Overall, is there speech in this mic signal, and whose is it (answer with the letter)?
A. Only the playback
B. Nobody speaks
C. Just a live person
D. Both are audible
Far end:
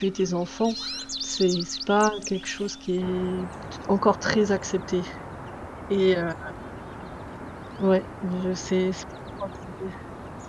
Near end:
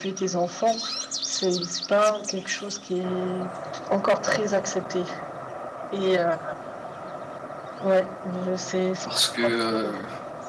D